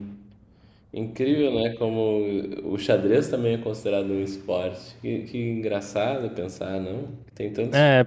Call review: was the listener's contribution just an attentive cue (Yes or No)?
No